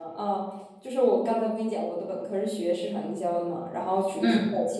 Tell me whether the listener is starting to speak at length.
No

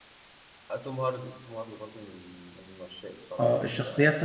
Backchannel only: No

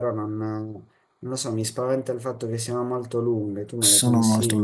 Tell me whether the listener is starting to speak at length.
Yes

